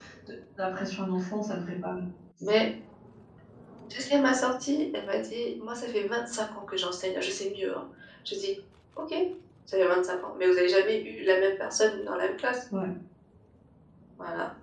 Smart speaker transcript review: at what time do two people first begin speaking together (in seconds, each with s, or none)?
none